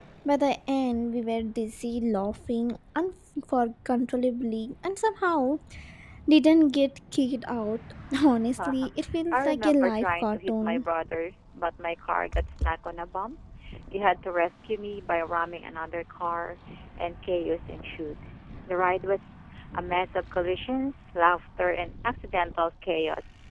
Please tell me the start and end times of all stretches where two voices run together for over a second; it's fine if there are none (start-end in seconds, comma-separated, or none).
9.3-10.8